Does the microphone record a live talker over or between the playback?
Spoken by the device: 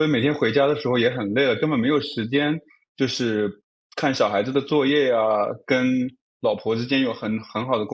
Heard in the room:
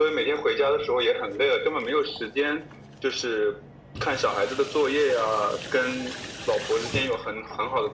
No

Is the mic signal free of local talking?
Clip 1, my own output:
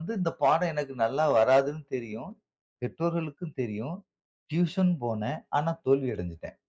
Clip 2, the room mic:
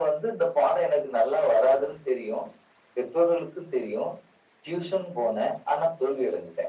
Yes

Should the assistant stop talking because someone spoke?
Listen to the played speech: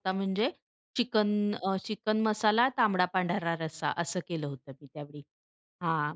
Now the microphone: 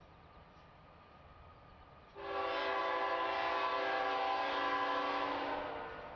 No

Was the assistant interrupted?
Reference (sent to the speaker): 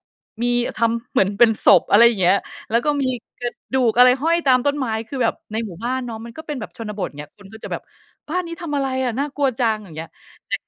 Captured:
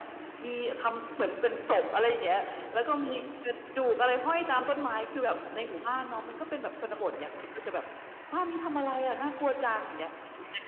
No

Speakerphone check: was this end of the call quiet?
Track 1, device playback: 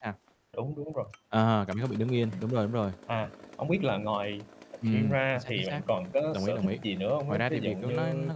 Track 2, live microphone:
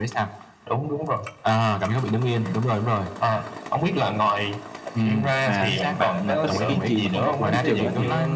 No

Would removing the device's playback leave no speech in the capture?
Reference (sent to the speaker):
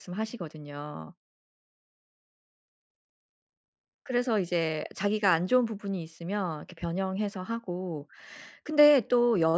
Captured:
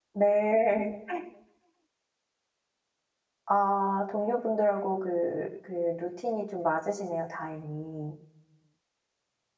No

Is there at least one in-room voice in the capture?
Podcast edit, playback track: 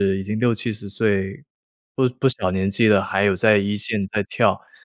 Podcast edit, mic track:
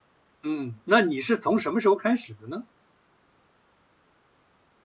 Yes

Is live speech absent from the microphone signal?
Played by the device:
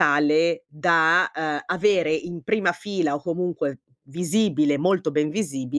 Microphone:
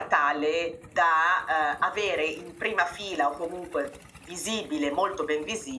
Yes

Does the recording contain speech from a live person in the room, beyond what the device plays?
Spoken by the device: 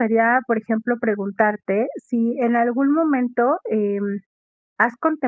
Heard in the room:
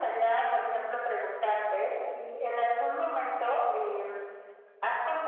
No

